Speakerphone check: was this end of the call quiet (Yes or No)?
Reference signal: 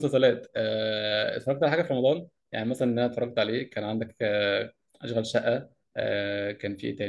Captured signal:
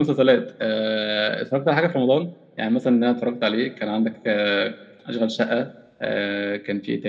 Yes